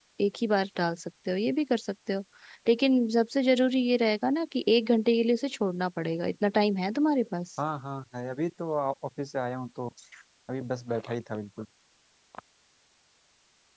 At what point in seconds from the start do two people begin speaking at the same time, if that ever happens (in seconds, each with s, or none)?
none